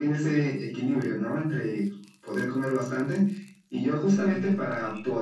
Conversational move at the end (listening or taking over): listening